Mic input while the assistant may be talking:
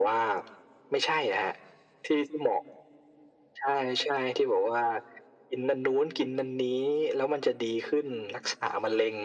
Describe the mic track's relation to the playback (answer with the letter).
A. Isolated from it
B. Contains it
B